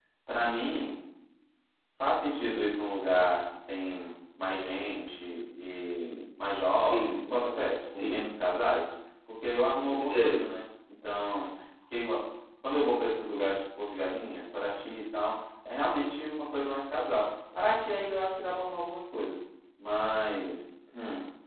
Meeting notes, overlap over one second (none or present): none